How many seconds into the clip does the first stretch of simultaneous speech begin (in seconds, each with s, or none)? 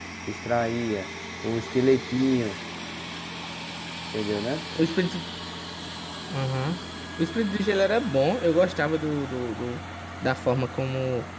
none